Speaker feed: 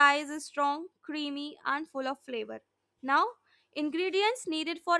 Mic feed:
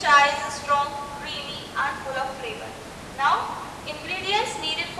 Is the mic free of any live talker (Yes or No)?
Yes